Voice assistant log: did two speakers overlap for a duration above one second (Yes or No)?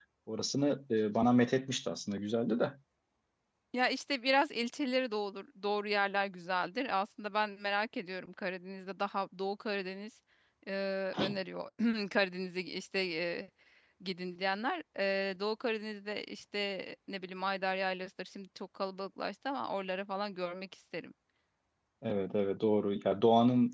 No